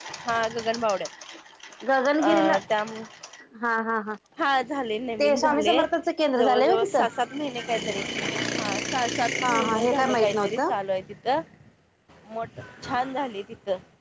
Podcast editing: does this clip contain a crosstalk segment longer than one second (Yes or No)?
Yes